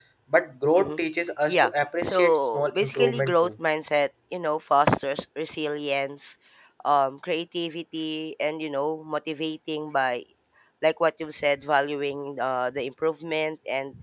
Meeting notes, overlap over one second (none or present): present